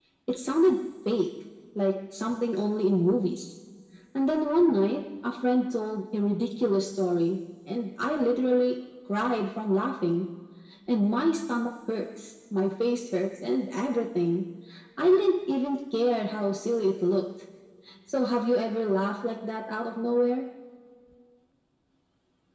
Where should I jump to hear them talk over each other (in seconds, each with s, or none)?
none